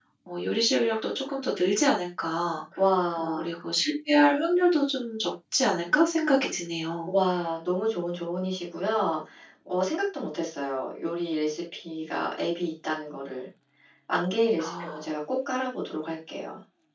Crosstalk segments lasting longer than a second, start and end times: none

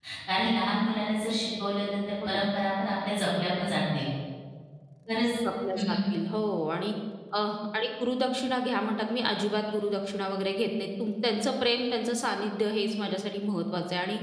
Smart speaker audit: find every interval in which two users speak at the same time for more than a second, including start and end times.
none

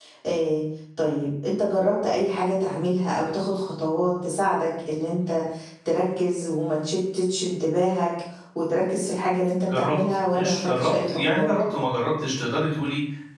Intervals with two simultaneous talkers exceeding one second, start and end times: 9.6-11.5

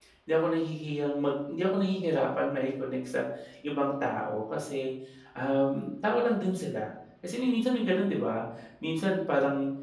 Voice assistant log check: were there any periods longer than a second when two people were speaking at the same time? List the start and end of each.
none

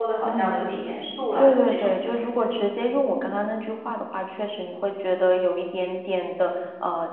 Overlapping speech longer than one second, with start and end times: 1.4-2.6

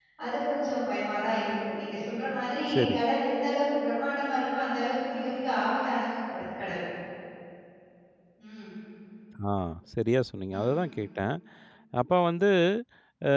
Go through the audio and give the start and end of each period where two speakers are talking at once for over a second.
none

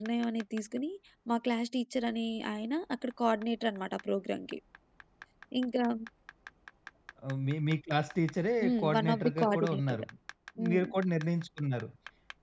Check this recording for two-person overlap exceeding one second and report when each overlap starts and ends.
8.6-10.0

